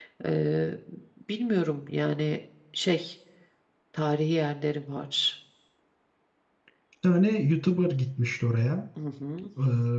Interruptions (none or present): none